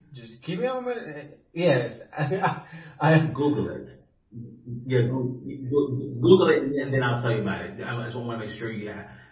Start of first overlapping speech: none

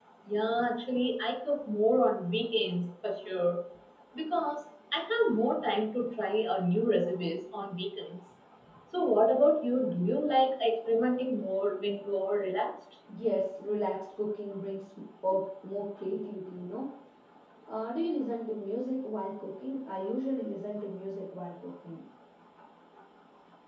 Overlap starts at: none

